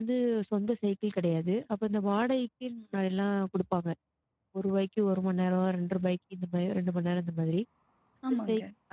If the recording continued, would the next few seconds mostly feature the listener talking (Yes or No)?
No